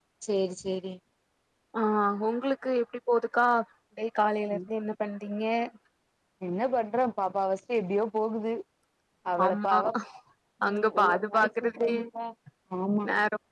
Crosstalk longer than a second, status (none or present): present